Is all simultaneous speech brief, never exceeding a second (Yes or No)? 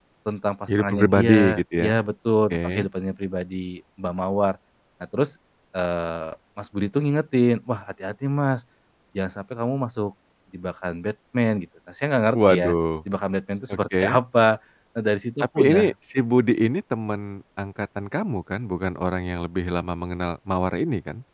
No